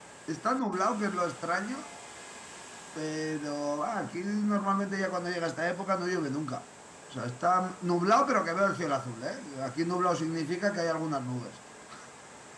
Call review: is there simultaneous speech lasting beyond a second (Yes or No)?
No